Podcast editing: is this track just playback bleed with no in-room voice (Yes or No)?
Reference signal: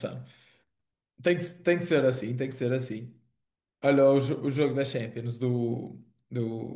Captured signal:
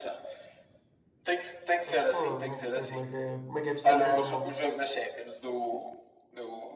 No